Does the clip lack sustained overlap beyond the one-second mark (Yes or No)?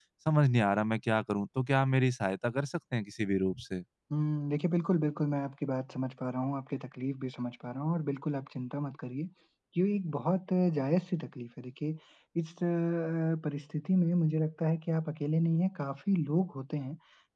Yes